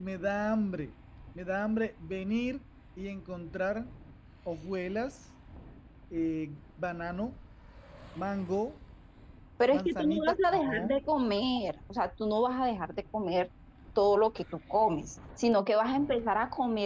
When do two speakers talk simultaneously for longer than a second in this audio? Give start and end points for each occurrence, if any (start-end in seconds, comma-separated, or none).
9.7-11.0